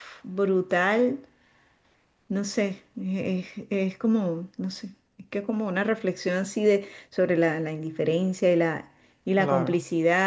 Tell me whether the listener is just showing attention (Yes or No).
Yes